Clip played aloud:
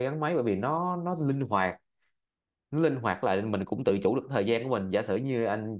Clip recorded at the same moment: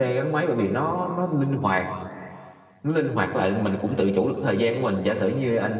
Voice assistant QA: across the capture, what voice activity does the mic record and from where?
echo only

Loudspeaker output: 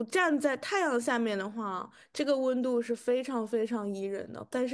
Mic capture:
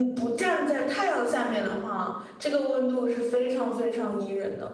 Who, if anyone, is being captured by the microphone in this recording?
echo only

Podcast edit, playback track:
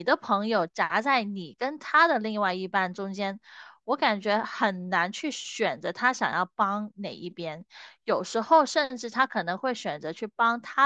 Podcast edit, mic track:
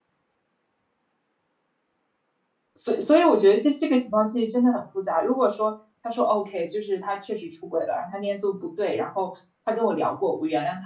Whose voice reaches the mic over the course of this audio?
user only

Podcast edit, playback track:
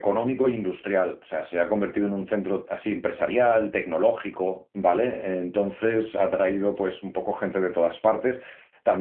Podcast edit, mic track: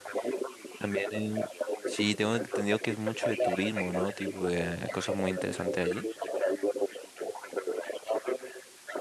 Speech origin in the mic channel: both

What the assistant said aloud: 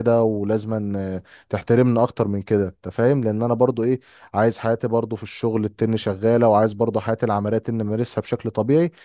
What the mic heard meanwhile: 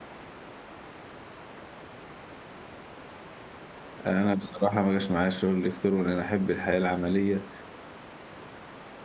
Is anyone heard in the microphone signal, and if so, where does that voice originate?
user only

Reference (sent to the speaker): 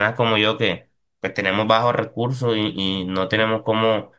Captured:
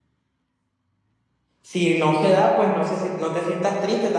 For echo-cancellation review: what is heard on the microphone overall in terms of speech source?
user only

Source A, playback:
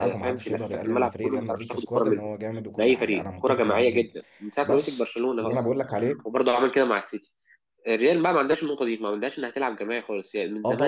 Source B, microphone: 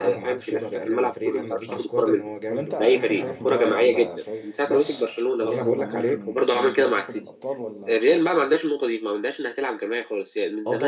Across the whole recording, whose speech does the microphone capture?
both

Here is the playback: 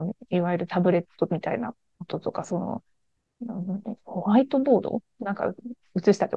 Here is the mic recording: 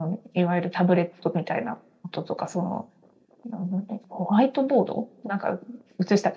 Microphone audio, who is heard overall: echo only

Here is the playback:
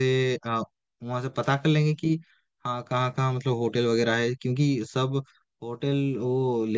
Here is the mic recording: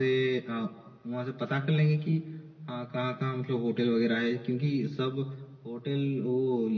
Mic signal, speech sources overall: echo only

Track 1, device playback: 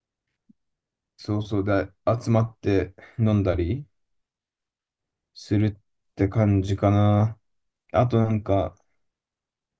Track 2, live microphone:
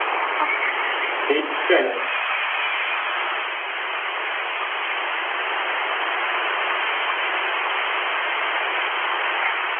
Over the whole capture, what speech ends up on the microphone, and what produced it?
user only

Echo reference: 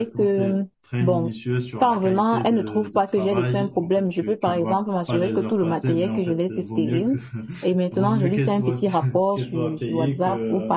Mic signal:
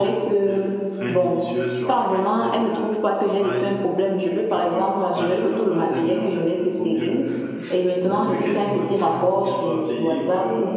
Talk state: echo only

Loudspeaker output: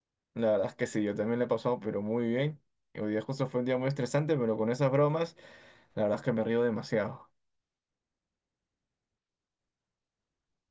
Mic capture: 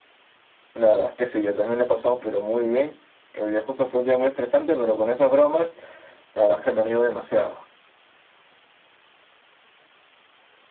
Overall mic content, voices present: echo only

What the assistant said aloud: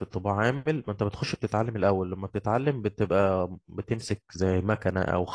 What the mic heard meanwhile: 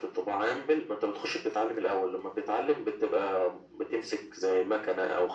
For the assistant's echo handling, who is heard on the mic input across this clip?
echo only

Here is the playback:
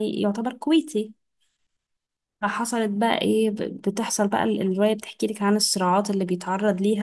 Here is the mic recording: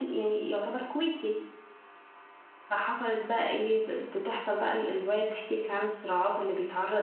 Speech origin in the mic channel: echo only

